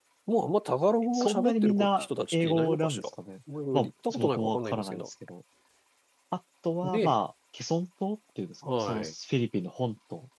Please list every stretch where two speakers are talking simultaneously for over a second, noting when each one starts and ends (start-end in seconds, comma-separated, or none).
1.1-3.1, 3.7-5.1